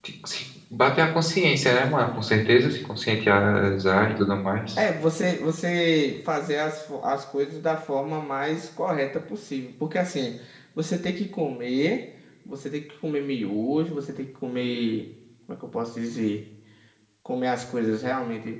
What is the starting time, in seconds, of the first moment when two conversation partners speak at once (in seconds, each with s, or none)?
none